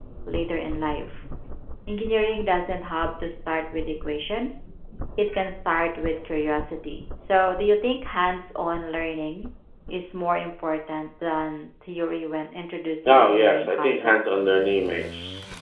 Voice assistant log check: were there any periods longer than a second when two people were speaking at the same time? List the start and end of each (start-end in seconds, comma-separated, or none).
13.1-14.6